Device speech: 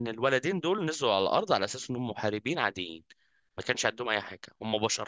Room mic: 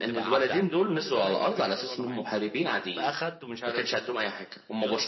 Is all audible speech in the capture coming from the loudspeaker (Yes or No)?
No